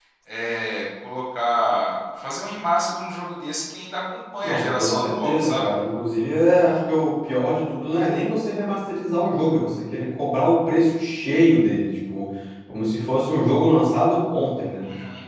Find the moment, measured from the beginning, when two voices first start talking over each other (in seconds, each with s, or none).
4.4 s